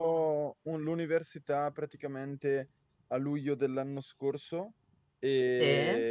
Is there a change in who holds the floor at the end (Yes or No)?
No